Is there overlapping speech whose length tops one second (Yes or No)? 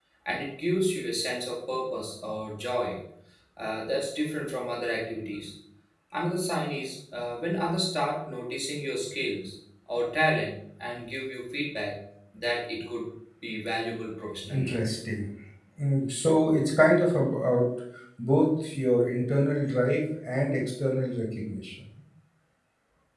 No